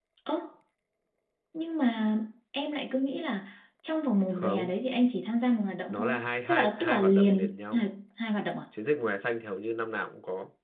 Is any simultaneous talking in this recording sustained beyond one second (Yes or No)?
Yes